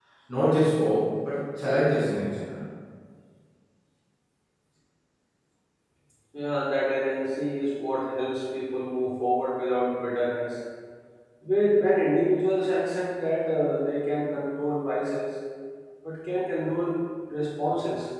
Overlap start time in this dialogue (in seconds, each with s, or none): none